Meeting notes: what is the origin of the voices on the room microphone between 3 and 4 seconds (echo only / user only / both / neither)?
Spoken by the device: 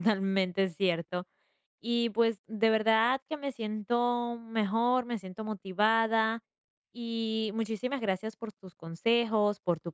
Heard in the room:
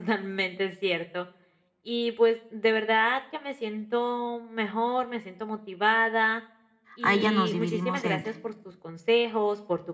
echo only